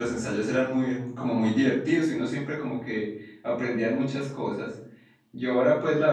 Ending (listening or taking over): listening